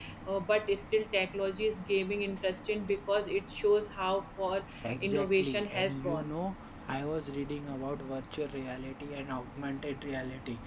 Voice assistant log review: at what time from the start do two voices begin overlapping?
4.8 s

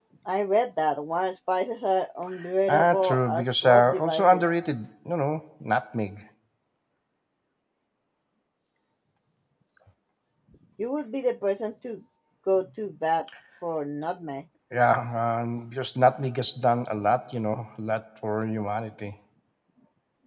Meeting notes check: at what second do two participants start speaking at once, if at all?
2.7 s

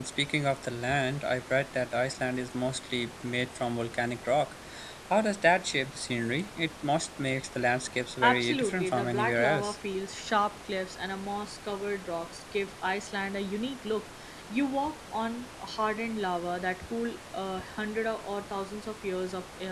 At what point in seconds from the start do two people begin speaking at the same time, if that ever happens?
8.2 s

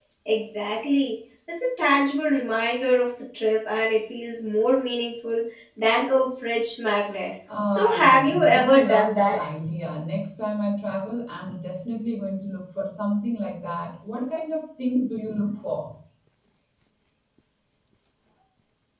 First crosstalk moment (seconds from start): 7.5 s

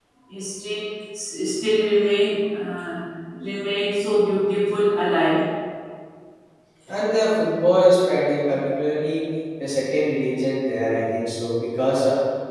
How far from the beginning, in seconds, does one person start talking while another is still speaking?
none

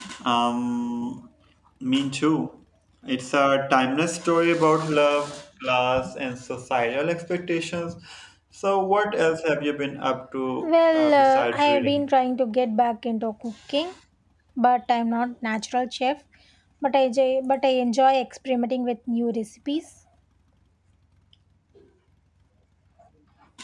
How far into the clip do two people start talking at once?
10.6 s

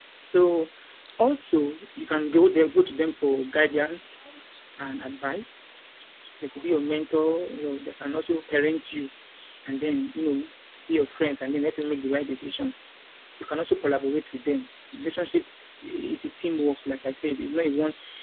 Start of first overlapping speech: none

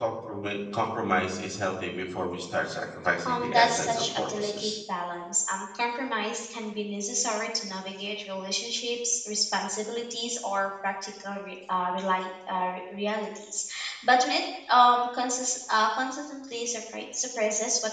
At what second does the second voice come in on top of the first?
3.2 s

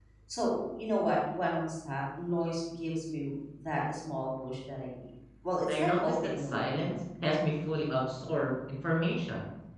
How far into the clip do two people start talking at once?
5.7 s

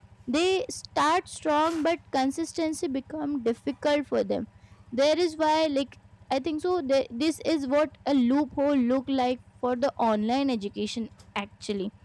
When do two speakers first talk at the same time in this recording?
none

